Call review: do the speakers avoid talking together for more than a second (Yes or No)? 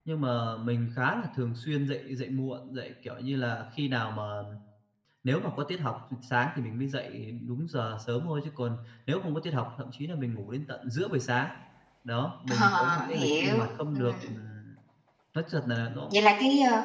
No